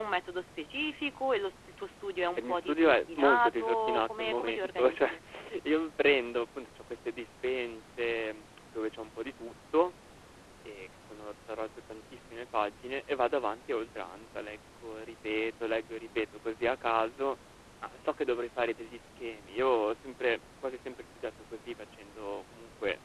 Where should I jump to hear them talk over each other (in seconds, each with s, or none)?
2.4 s